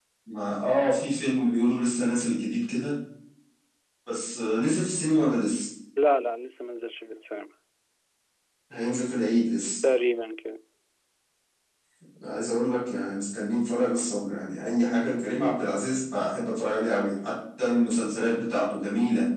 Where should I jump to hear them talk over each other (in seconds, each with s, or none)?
none